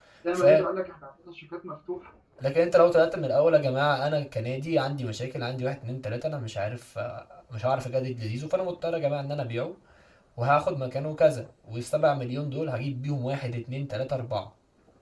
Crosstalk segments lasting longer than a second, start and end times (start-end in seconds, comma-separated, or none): none